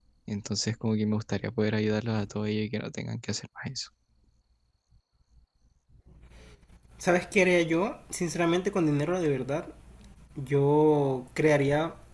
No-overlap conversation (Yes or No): Yes